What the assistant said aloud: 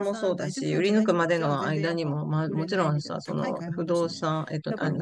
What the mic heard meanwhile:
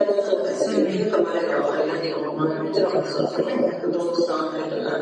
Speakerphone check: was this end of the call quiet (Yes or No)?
No